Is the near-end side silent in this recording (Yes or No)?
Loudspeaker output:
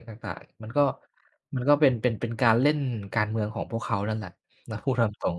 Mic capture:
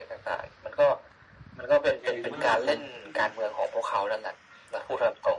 No